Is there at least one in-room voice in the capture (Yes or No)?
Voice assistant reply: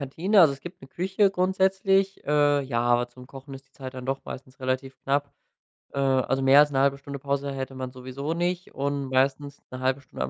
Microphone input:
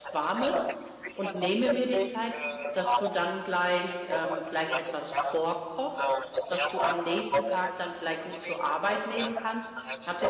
Yes